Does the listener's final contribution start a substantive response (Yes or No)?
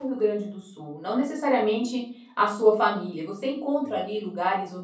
No